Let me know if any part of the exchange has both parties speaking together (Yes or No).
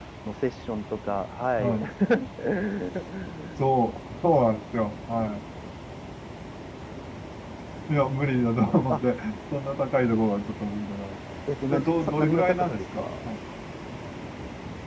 Yes